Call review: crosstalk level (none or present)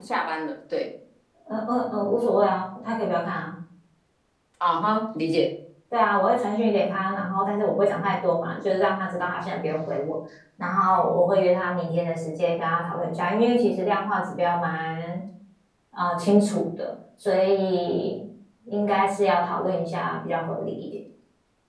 none